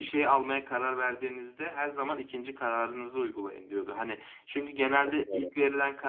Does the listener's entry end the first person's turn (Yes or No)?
No